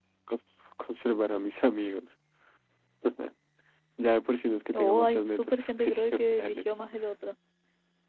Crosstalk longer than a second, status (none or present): present